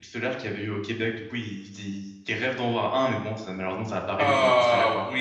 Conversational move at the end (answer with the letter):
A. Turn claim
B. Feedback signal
A